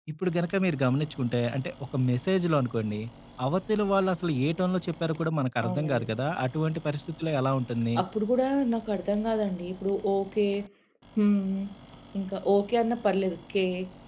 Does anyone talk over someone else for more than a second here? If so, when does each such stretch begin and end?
none

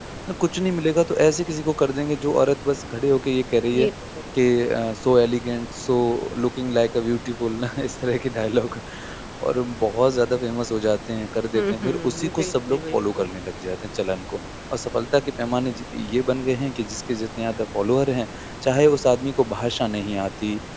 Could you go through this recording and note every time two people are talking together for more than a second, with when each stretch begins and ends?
11.5-13.3

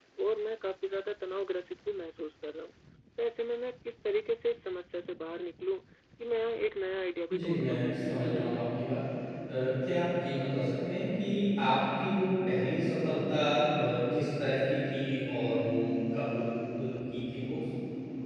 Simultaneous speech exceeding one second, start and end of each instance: 7.3-8.6

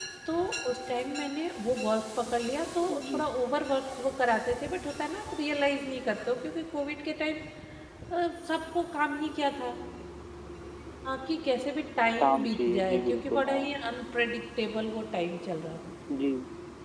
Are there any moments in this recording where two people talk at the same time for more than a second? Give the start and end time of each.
12.2-13.6

